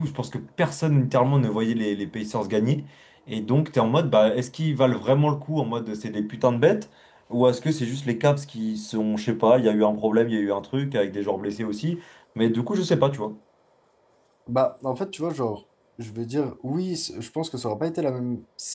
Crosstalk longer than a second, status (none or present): none